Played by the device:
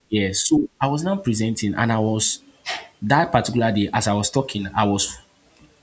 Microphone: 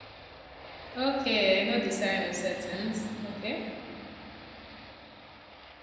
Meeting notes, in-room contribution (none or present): present